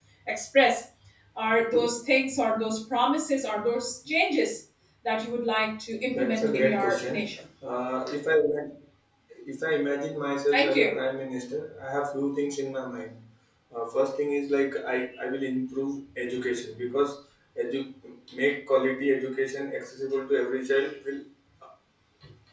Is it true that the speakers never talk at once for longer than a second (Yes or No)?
No